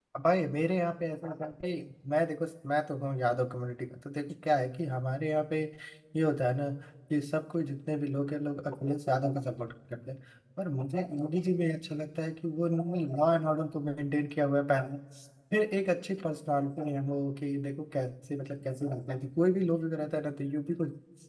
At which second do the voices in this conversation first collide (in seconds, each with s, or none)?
none